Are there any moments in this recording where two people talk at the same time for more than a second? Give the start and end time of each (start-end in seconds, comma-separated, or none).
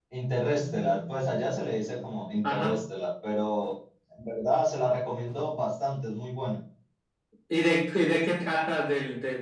none